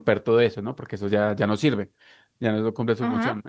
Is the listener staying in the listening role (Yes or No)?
Yes